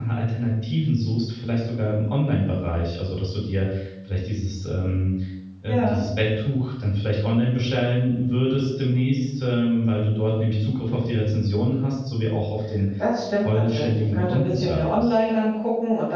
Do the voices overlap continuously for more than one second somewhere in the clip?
Yes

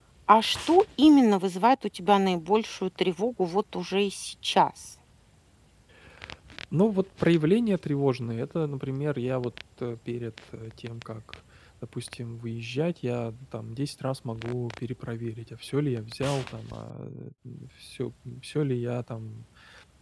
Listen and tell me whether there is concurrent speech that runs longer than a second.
No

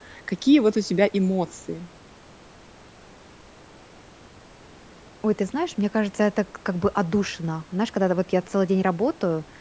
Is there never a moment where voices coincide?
Yes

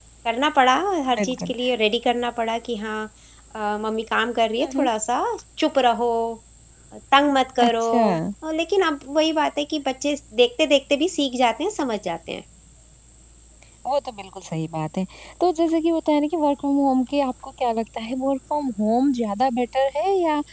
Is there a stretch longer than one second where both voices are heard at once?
No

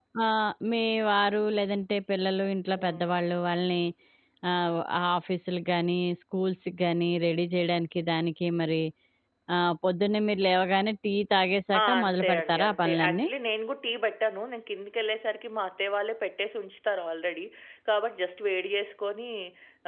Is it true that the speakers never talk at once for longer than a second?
No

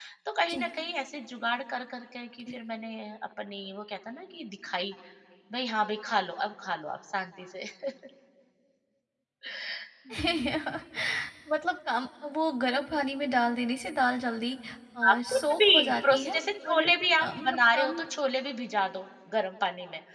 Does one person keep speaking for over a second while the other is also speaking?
Yes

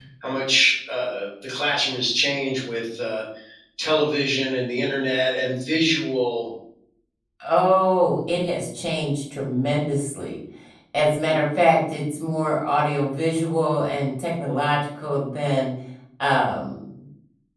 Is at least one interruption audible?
No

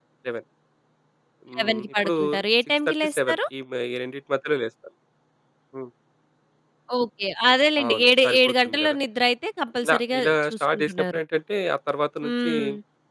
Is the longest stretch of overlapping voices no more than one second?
No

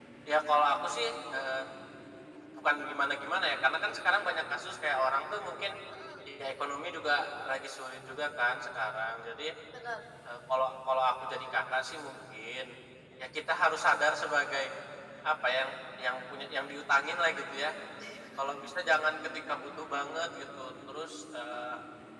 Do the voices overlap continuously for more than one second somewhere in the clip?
No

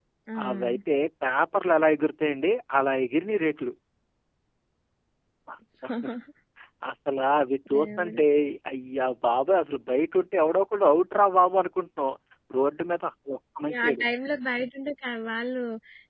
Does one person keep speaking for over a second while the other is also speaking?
No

